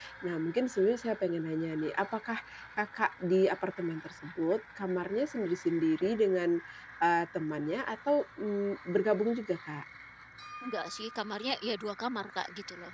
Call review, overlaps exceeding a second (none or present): none